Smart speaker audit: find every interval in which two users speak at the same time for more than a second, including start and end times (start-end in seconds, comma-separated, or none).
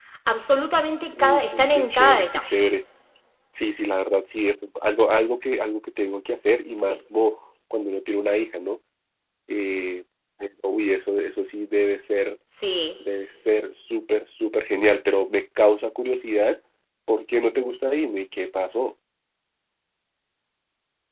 1.2-2.6